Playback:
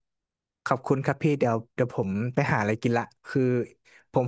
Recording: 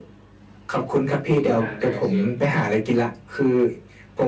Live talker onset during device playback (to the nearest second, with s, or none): 1 s